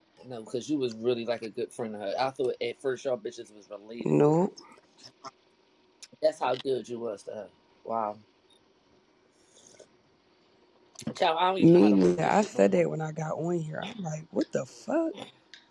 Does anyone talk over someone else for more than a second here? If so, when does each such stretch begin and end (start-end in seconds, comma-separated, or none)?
11.6-12.8